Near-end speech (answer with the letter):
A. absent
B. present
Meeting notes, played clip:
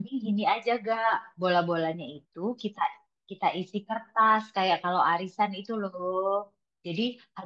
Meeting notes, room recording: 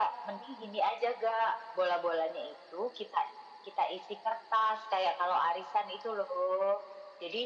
A